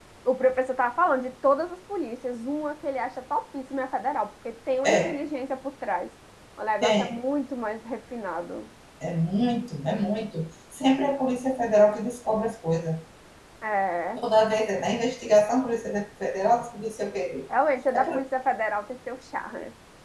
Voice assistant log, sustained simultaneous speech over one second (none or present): none